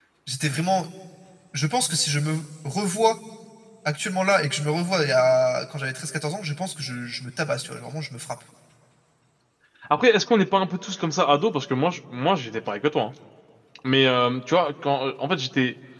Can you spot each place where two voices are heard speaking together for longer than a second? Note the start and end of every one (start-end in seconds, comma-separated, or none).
none